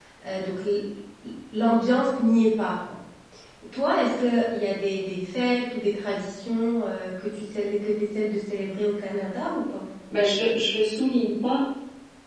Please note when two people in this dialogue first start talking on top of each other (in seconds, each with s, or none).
none